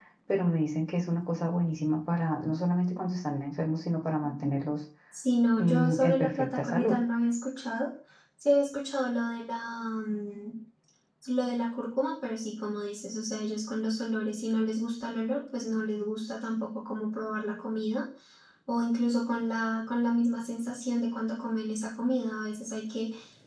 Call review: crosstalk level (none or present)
present